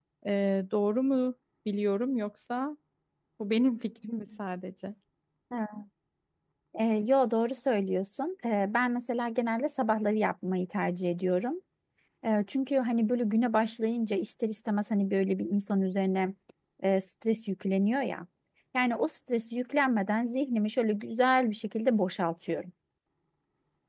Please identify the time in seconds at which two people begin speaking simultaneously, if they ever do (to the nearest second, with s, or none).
none